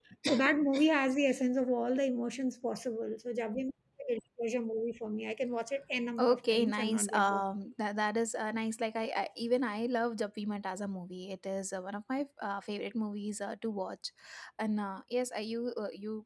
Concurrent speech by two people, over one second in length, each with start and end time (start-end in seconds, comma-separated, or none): 6.2-7.4